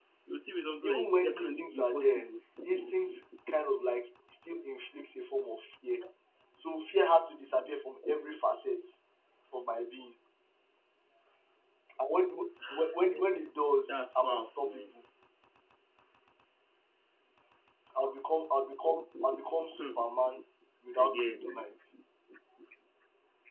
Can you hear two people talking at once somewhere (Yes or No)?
Yes